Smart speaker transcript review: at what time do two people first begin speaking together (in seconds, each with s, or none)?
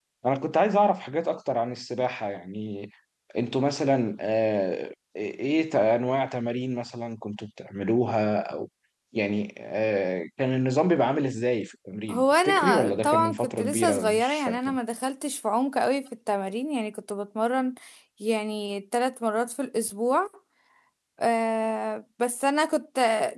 12.1 s